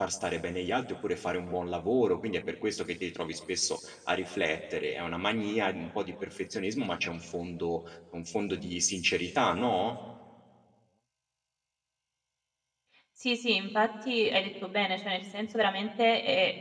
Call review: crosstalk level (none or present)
none